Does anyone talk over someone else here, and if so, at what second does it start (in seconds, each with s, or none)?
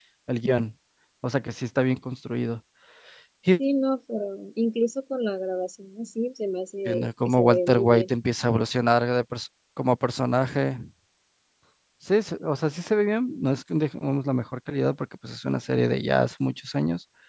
6.8 s